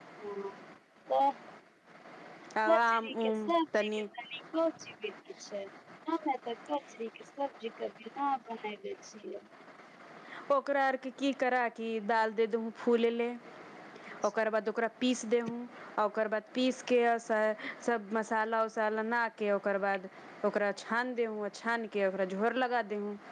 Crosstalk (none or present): present